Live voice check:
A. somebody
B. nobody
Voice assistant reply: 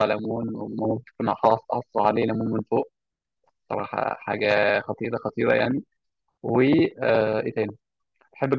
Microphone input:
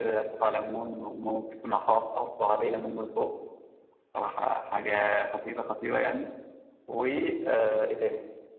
B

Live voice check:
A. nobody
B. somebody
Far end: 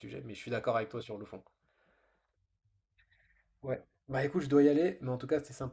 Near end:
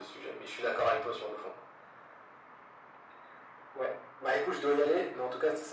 A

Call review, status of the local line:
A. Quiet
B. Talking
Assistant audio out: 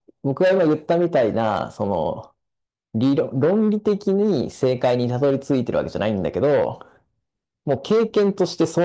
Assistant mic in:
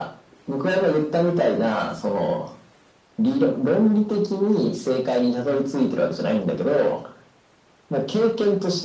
A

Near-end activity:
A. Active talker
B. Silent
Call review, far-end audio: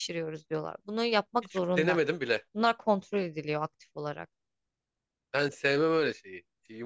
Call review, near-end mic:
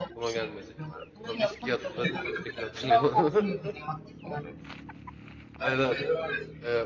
A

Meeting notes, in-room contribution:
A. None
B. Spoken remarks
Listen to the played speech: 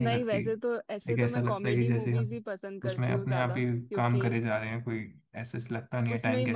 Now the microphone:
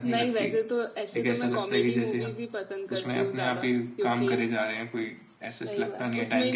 B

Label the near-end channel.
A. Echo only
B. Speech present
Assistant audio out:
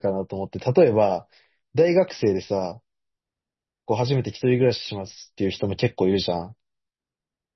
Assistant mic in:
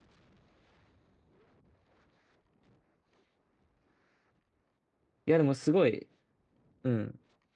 B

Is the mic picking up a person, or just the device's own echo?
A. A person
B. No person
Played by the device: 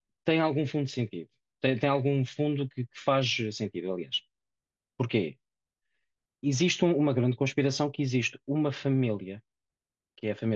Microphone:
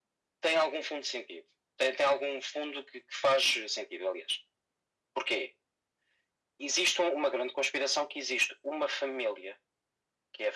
B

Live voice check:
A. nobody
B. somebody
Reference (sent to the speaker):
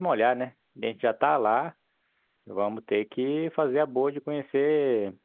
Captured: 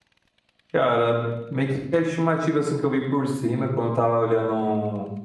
B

